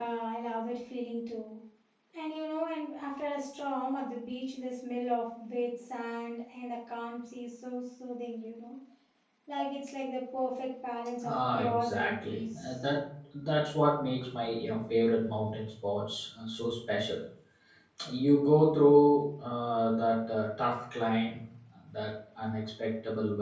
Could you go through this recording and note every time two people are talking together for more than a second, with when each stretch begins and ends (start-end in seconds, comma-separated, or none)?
11.5-12.7